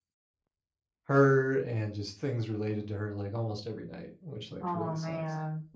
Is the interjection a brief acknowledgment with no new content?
No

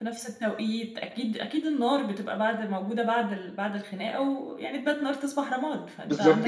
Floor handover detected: Yes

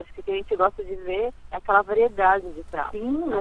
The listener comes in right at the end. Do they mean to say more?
Yes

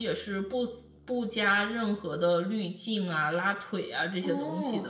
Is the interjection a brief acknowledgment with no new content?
No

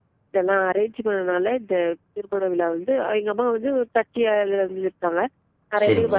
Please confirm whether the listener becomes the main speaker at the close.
No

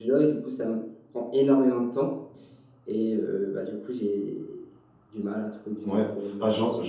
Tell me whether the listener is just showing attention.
No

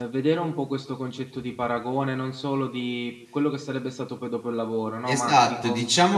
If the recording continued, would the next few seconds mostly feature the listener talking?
Yes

